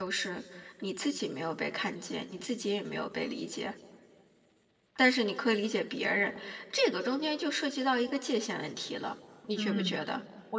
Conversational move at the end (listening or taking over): taking over